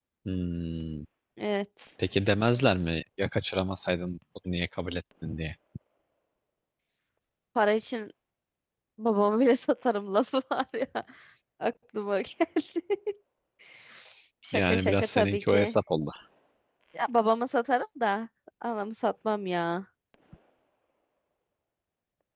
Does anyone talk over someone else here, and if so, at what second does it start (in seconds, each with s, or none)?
14.5 s